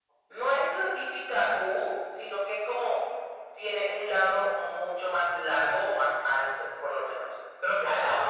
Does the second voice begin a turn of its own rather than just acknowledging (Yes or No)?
Yes